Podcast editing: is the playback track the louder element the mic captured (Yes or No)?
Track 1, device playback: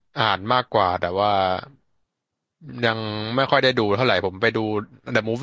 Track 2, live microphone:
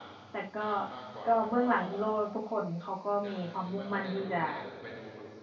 No